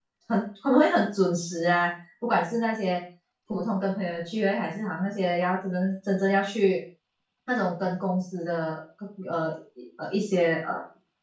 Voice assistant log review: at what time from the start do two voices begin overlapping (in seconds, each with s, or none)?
none